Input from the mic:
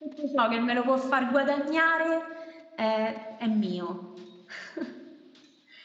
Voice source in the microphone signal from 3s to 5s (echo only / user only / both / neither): user only